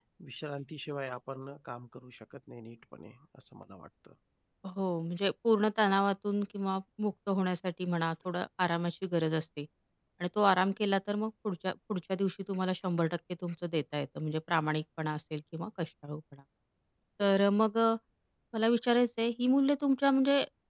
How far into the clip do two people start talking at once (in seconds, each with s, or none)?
none